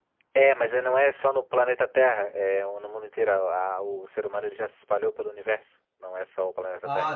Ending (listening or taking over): taking over